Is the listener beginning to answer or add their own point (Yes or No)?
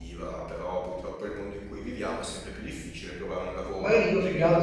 Yes